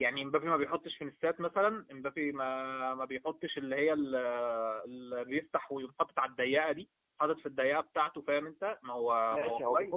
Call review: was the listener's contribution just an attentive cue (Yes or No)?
No